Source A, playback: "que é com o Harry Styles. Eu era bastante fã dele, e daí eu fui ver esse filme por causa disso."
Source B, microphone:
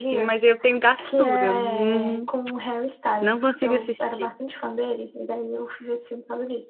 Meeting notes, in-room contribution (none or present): present